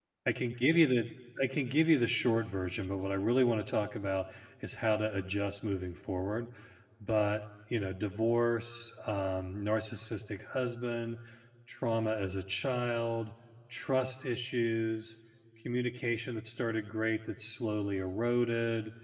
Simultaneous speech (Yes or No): No